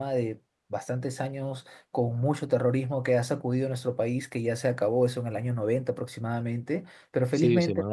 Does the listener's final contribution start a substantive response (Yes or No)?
Yes